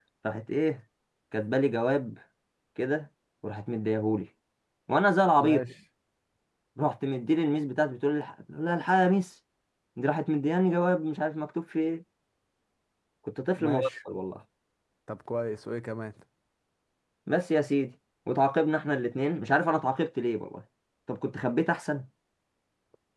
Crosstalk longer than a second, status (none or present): none